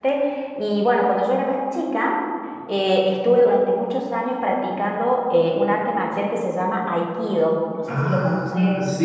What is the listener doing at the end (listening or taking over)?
taking over